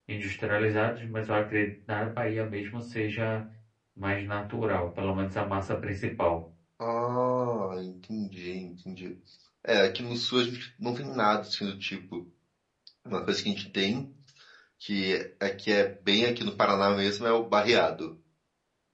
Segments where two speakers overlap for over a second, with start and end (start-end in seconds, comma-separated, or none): none